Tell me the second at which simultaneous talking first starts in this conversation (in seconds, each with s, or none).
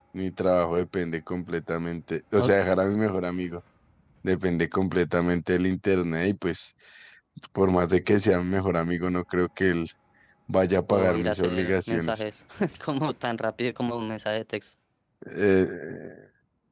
10.9 s